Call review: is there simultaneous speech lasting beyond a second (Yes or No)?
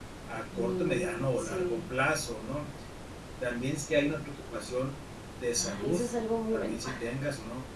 Yes